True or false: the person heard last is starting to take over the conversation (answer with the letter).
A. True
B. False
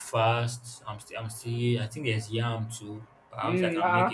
A